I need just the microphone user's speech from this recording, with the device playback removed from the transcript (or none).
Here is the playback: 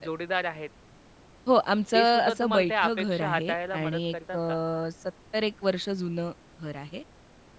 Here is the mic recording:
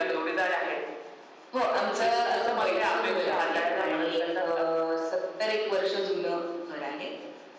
none